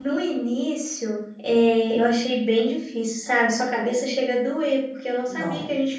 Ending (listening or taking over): listening